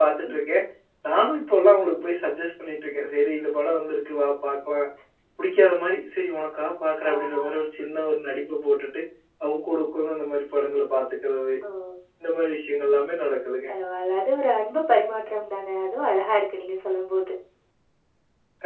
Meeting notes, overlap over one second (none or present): none